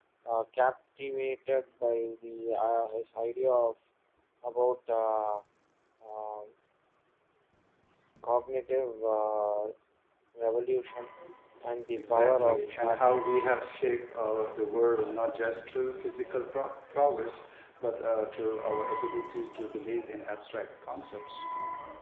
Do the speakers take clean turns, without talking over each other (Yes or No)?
No